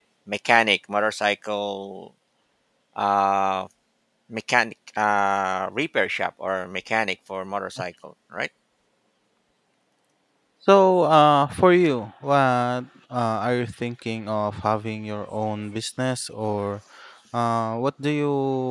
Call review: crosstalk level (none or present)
none